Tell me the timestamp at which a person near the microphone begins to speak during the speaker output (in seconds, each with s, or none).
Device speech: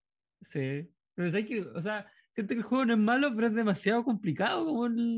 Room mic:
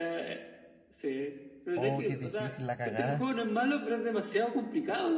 1.7 s